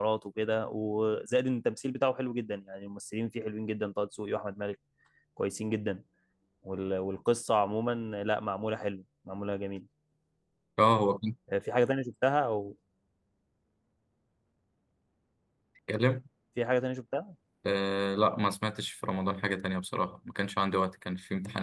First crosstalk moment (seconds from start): none

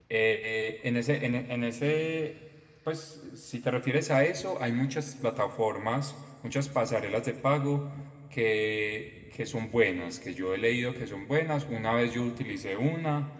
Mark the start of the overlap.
none

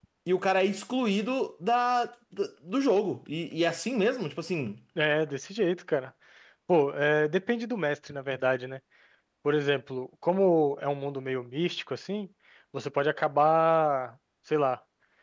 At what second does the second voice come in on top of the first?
none

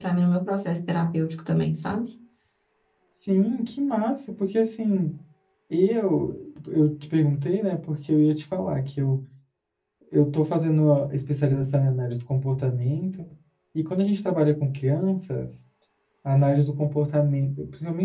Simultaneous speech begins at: none

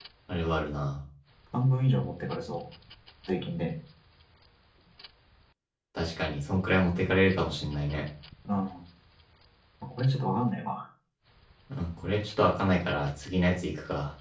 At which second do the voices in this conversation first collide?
none

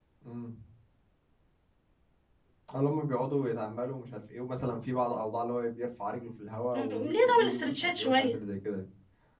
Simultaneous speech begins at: 6.7 s

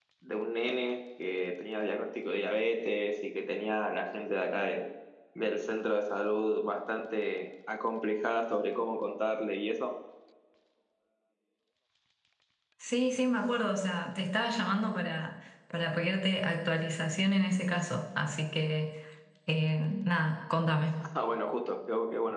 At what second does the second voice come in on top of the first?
none

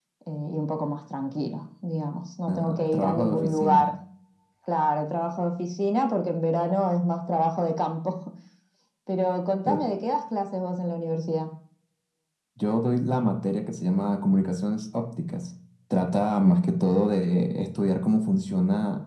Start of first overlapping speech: 2.5 s

